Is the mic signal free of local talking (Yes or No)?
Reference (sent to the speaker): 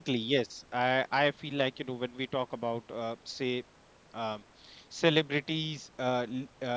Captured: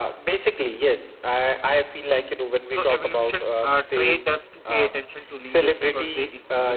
No